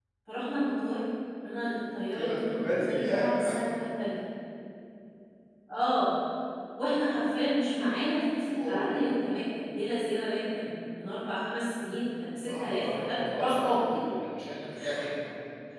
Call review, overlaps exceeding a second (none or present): present